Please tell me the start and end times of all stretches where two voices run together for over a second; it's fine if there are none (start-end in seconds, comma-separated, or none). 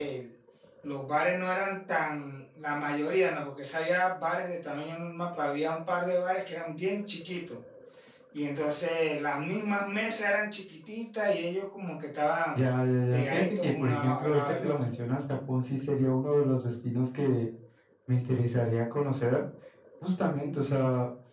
13.1-14.8